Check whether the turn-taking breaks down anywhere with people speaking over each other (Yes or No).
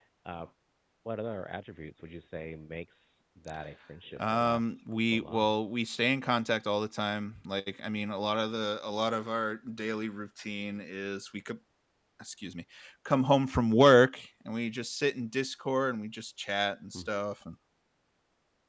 Yes